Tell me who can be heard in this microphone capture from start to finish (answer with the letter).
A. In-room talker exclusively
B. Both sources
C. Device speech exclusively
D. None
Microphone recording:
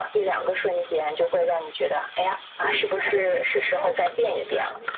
B